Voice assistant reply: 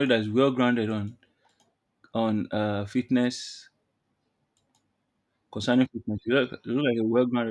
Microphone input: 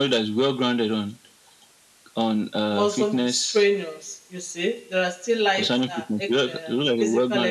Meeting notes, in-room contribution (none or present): present